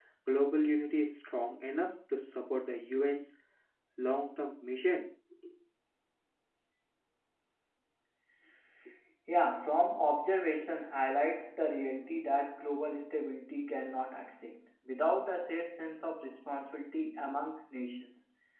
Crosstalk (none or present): none